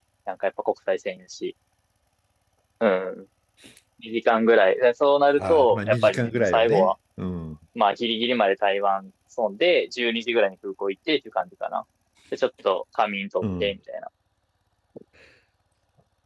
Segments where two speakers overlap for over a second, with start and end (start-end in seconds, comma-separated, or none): 5.4-6.9